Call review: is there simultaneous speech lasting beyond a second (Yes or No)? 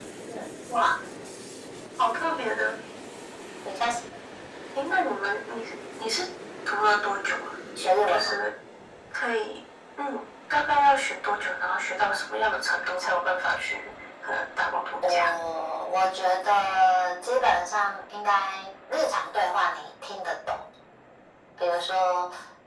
No